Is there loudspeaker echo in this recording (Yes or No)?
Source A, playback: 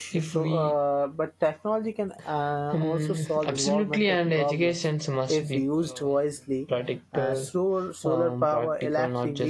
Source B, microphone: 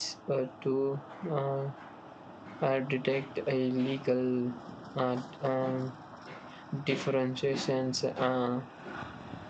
No